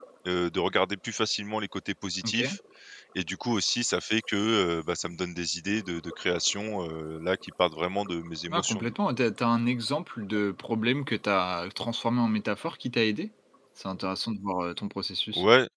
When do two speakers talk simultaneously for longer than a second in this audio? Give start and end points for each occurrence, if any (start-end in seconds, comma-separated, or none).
none